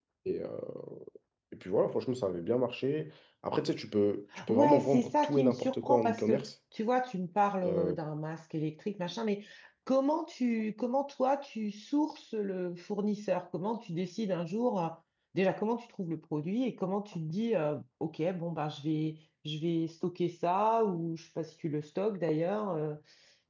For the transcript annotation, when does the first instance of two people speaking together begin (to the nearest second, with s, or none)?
4 s